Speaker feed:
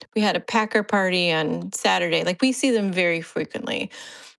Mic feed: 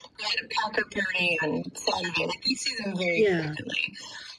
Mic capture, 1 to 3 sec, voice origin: echo only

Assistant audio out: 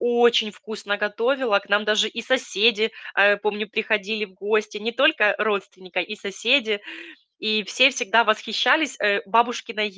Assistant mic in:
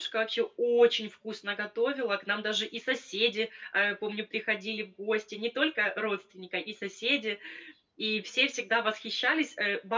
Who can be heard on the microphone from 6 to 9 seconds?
echo only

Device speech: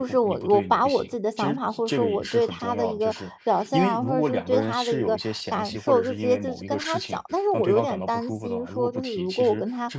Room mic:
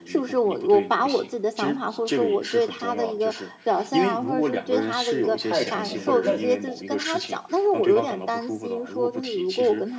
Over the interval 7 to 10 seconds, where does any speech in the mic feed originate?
echo only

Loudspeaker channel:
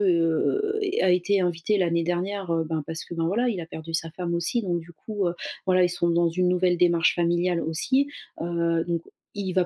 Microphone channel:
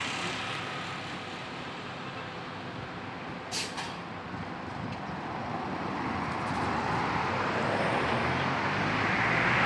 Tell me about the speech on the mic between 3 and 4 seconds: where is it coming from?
neither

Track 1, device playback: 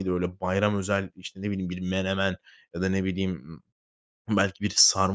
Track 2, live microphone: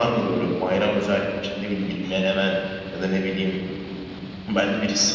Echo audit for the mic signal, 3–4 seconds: echo only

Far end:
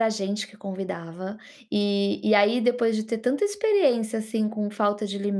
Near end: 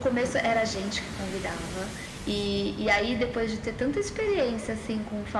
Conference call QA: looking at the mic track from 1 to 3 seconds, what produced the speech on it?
echo only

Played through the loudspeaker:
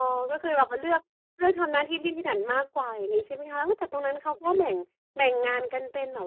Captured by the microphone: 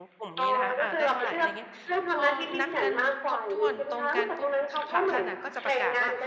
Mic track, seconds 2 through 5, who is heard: both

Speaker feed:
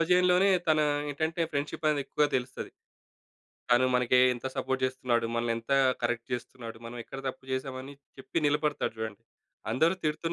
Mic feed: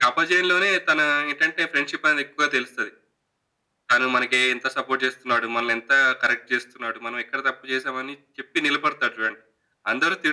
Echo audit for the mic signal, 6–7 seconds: echo only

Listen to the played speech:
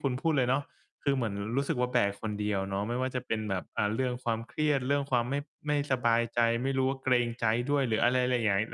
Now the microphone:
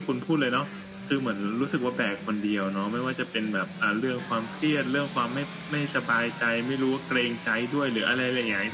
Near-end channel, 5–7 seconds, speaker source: echo only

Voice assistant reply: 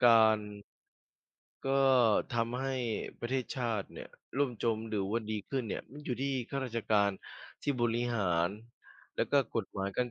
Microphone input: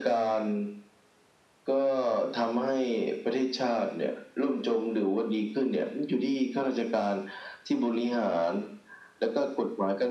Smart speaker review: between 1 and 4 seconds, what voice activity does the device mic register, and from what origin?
echo only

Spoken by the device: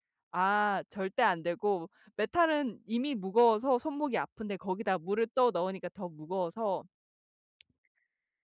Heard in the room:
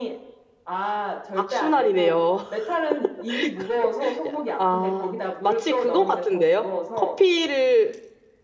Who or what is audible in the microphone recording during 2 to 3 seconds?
both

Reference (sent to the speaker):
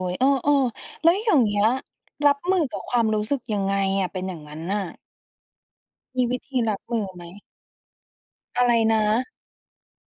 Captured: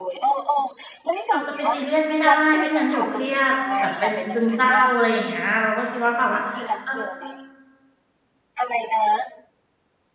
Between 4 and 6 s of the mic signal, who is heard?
both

